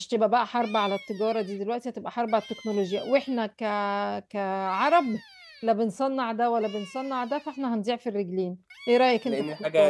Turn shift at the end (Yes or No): Yes